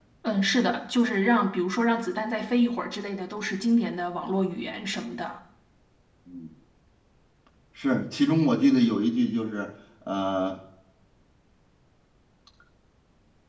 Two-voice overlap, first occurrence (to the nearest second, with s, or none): none